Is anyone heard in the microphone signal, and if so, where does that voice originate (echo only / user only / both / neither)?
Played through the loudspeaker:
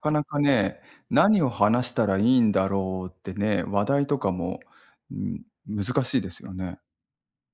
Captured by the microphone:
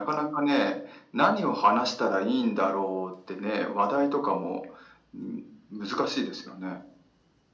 echo only